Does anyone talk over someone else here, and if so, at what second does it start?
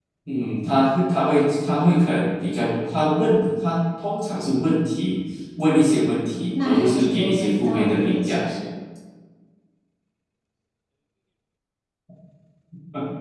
7 s

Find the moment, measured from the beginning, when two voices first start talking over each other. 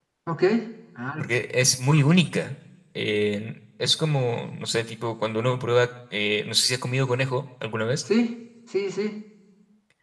none

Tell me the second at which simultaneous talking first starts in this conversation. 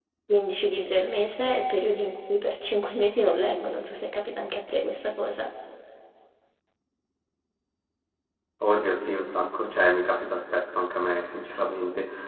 none

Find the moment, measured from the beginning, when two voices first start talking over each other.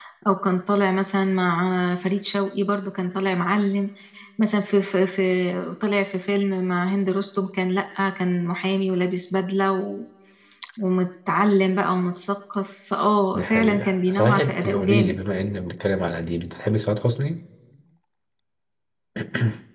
13 s

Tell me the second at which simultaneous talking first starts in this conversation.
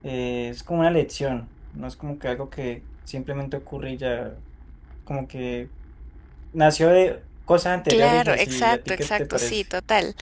8 s

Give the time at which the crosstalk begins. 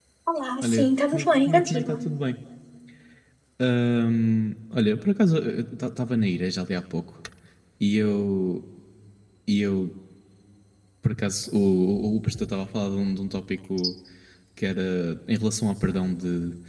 1 s

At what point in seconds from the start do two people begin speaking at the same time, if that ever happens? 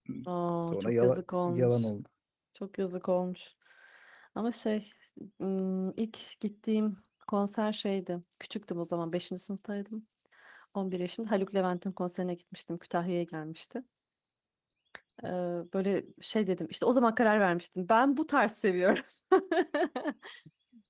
1 s

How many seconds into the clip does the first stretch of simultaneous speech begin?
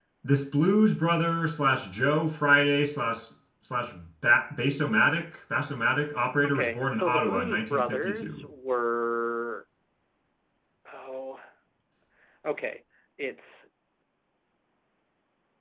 6 s

